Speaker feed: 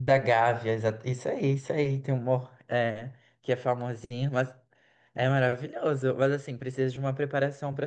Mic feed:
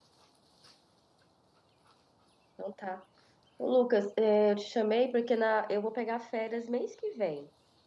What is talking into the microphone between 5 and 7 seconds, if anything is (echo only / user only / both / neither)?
user only